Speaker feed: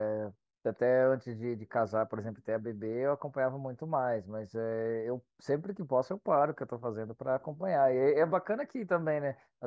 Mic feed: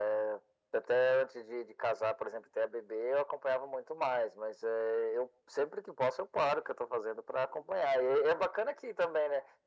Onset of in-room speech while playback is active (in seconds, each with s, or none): none